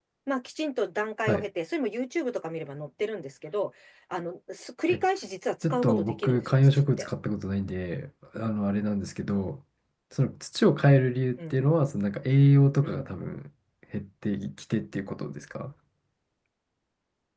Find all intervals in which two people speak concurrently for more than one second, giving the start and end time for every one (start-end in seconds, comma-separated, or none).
5.6-7.1